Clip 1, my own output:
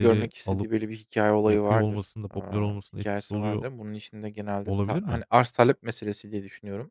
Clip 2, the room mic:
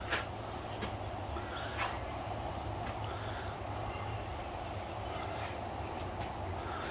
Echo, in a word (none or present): none